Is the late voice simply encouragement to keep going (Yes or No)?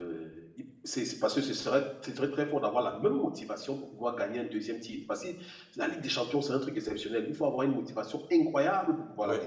Yes